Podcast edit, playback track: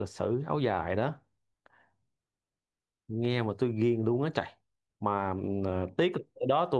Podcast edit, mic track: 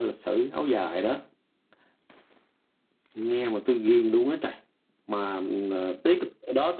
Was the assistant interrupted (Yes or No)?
No